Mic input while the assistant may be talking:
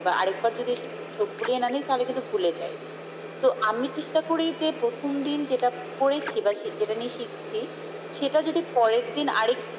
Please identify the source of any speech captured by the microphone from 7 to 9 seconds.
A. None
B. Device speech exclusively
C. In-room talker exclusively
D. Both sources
B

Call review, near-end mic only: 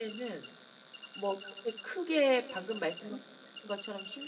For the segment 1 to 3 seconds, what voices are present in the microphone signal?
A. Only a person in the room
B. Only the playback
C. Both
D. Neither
A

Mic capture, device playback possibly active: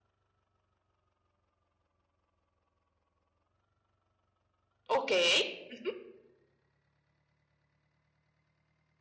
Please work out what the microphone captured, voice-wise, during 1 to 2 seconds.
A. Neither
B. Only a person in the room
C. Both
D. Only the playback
A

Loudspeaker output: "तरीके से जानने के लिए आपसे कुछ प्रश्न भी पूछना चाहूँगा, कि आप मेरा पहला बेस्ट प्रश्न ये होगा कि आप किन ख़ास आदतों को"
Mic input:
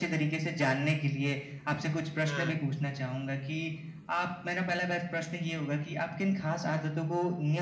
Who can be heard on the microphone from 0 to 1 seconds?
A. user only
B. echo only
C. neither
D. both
B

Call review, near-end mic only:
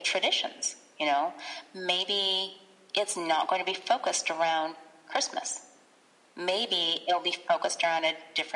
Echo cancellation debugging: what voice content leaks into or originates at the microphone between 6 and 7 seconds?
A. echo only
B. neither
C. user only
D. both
A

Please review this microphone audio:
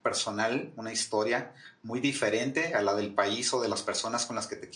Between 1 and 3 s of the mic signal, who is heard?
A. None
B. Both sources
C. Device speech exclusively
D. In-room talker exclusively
D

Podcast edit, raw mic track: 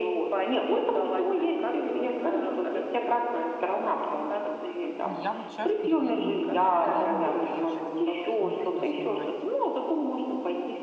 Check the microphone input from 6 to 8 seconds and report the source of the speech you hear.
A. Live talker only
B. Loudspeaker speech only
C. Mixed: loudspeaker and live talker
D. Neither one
C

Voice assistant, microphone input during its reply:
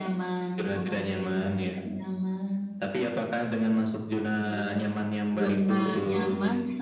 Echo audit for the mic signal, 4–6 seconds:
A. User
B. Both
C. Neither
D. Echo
B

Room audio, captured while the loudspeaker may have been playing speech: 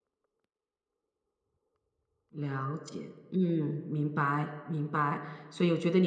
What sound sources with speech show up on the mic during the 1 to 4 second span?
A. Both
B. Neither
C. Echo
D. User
D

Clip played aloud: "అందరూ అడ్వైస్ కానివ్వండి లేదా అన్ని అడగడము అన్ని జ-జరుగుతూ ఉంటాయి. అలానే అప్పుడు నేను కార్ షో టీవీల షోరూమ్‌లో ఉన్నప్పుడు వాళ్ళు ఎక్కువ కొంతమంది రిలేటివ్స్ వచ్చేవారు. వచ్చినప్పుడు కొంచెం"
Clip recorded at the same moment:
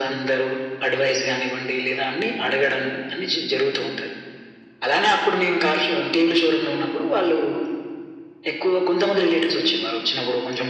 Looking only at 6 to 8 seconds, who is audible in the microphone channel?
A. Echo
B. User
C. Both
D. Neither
A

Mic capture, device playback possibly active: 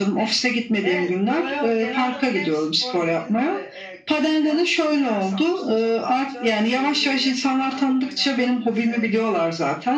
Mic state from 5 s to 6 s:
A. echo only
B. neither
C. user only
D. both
D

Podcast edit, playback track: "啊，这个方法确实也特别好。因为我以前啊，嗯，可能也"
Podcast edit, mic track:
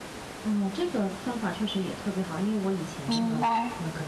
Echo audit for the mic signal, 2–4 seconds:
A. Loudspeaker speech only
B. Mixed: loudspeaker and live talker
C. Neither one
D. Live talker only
B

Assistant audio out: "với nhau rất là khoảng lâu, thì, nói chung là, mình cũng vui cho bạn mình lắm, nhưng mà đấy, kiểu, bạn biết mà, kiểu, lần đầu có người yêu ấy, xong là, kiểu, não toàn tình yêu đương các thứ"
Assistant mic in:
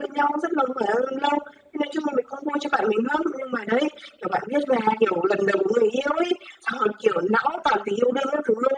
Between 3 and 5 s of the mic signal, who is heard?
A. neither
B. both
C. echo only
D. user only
C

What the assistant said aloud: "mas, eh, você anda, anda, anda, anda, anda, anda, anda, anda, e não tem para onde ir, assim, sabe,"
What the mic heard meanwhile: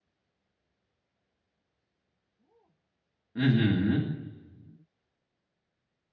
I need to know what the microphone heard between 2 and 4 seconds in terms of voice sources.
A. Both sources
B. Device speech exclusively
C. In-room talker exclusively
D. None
C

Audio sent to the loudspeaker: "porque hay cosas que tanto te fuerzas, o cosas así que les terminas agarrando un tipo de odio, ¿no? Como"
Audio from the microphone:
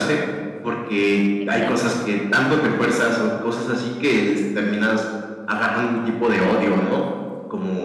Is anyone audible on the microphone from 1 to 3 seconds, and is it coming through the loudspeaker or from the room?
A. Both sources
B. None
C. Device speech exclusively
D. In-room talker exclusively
A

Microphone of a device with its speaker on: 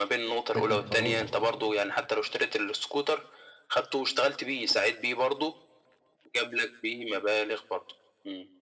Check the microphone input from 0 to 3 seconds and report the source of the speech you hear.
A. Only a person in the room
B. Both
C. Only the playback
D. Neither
B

